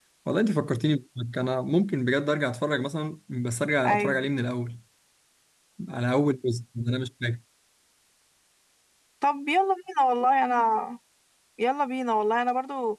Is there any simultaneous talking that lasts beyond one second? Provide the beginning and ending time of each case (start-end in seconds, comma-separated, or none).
none